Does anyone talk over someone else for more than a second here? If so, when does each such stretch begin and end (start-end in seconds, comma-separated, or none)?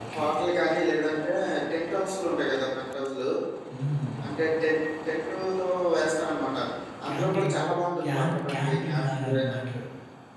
8.0-9.7